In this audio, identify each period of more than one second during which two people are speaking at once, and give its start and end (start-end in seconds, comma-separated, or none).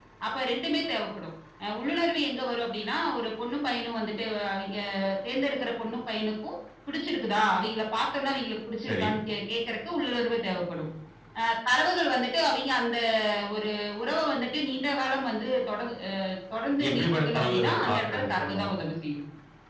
16.9-18.7